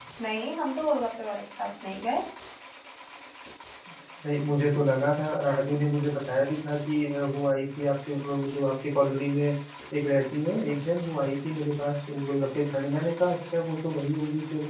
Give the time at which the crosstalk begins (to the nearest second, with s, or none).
none